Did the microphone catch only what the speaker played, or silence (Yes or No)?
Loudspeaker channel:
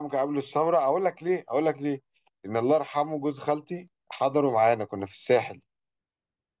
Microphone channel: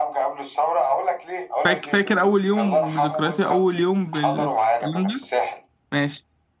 No